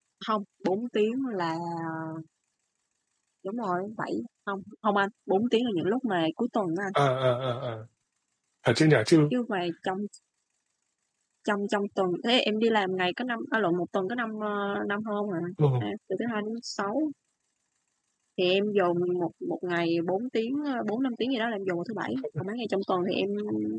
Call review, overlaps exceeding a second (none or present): none